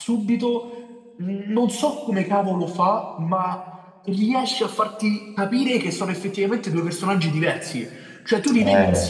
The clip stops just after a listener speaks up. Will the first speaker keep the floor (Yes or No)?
Yes